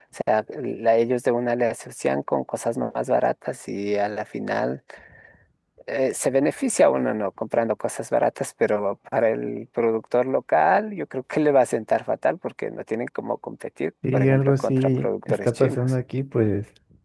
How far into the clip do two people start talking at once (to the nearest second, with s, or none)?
14 s